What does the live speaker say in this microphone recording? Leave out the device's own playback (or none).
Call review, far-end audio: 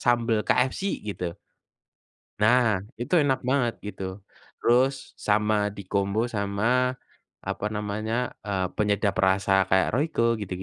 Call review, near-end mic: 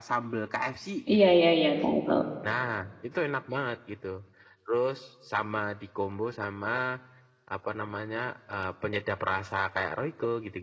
Iya iya iya. Tahu tahu.